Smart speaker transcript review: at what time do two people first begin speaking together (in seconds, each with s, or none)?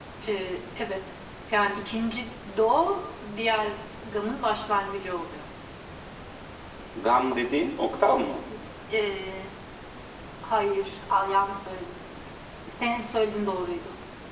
none